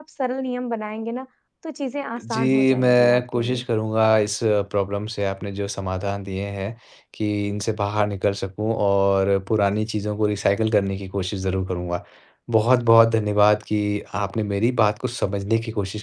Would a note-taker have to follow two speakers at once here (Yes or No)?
Yes